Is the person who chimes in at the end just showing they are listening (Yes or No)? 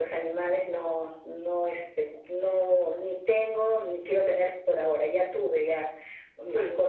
Yes